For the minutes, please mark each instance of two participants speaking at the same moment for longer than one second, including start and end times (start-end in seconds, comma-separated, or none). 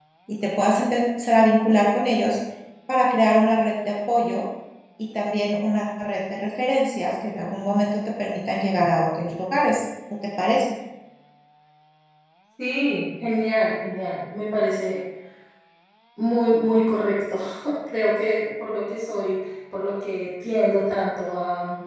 none